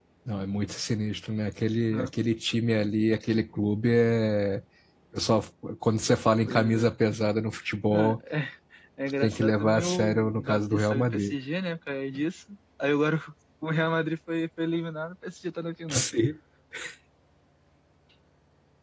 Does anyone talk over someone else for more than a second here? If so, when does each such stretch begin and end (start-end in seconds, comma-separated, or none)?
9.2-11.3